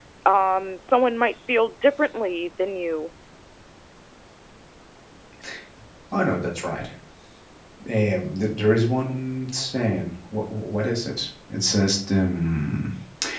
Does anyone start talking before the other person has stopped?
No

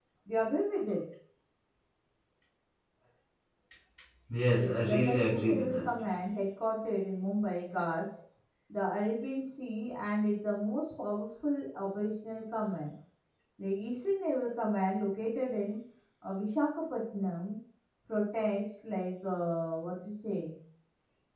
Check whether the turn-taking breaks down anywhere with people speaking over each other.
Yes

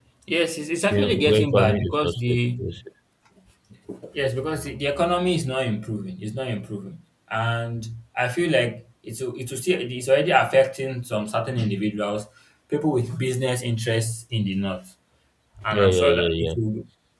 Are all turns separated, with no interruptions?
No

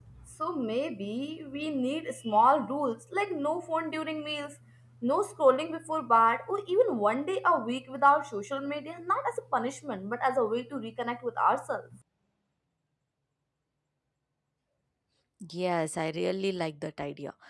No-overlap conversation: Yes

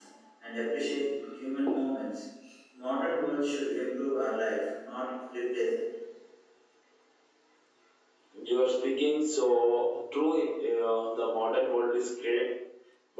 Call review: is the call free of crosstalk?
Yes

